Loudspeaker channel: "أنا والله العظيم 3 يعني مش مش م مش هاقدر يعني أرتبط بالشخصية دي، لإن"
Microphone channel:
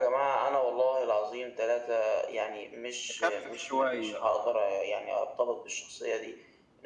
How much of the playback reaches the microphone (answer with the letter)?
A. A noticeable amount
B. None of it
A